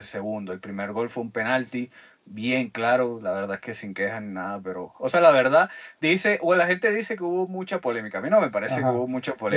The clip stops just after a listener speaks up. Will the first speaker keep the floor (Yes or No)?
No